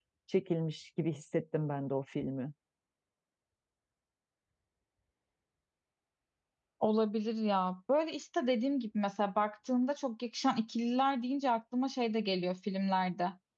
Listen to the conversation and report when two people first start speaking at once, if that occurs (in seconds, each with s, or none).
none